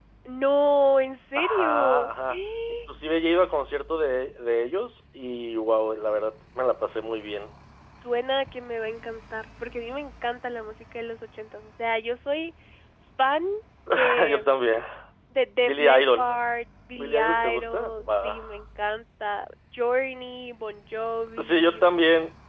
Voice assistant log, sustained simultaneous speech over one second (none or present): present